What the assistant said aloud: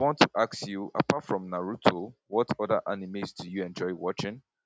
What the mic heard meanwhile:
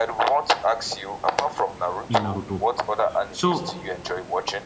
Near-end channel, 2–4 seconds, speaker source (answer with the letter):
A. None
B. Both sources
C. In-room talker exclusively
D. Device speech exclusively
B